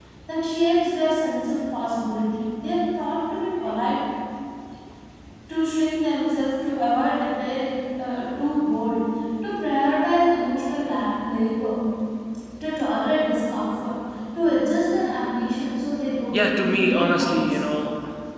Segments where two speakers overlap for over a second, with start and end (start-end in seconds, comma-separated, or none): 16.3-17.6